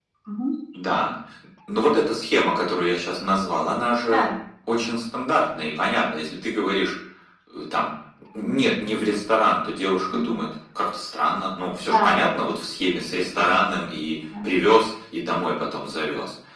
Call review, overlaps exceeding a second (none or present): none